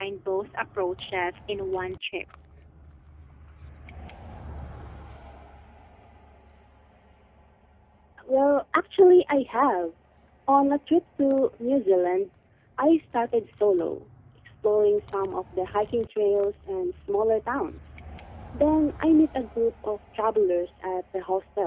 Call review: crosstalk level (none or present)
none